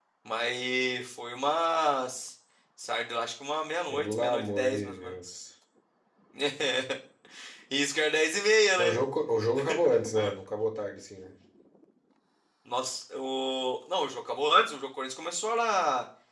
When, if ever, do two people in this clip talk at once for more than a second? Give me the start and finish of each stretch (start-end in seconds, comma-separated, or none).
3.9-5.1